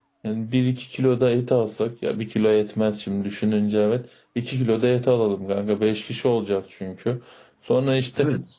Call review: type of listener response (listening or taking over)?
listening